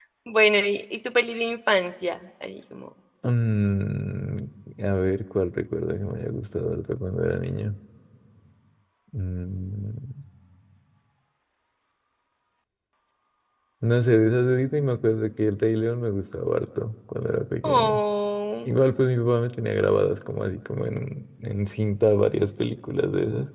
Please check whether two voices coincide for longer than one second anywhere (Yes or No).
No